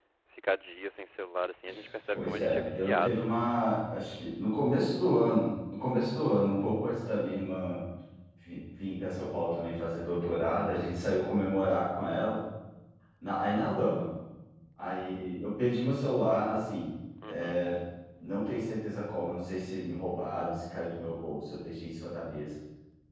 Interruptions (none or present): present